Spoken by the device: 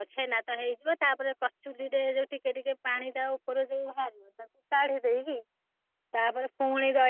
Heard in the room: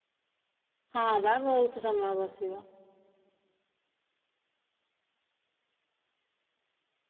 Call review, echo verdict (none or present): none